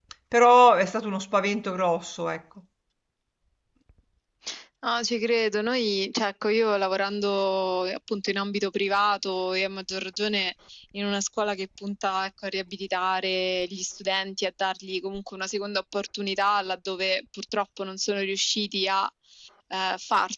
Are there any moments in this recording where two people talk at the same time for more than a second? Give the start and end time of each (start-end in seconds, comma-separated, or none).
none